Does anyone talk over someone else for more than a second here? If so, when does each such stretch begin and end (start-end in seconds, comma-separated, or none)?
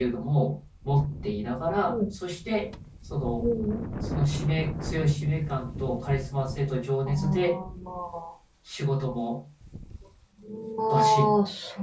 none